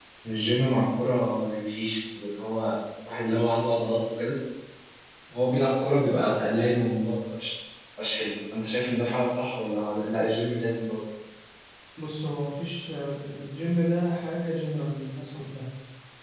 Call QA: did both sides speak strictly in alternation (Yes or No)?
Yes